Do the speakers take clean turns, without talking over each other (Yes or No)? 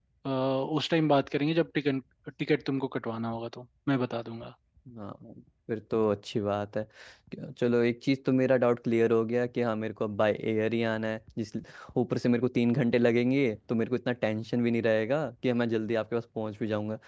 Yes